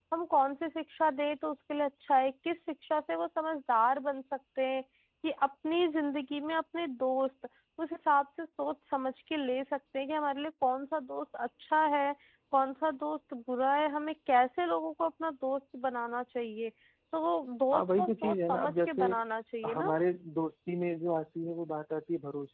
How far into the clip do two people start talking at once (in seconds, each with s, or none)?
17.7 s